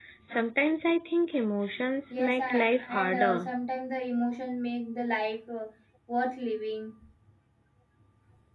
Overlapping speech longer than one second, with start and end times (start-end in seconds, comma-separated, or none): 2.1-3.5